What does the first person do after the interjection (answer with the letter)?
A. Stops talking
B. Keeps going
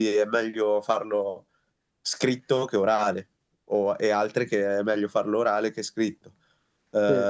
B